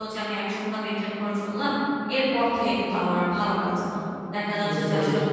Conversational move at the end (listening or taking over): listening